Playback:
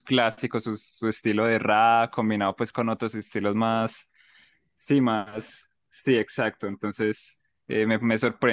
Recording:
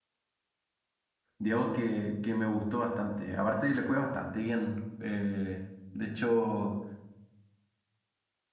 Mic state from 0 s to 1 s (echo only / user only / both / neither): neither